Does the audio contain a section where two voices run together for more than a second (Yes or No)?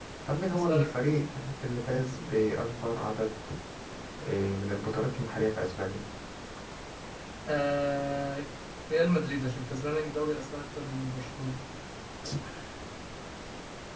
No